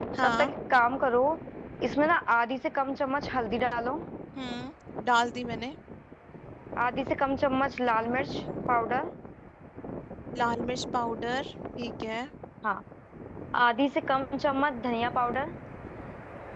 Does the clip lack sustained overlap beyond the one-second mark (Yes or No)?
Yes